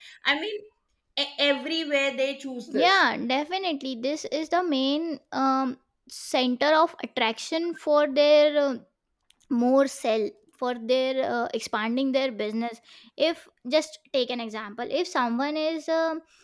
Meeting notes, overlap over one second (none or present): none